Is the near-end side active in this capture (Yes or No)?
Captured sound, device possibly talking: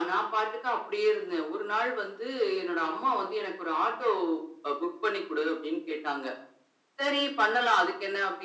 No